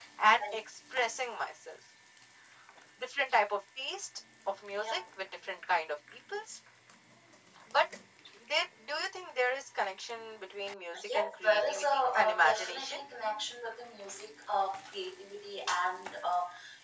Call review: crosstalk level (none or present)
present